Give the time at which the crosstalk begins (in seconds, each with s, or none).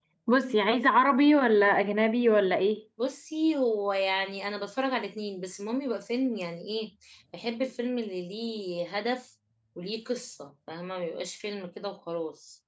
none